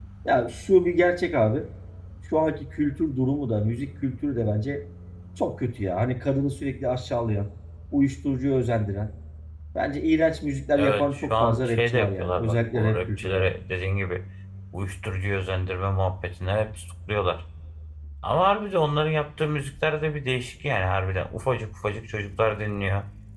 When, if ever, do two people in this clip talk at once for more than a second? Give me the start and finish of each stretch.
10.8-13.5

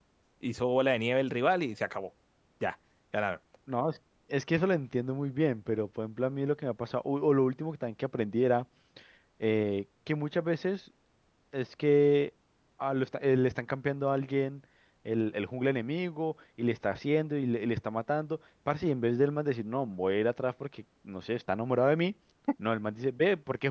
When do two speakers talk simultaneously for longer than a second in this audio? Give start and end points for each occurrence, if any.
none

